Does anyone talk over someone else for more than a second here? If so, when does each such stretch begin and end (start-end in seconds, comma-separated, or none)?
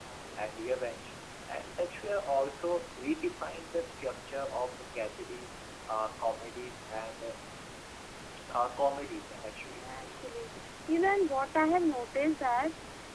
none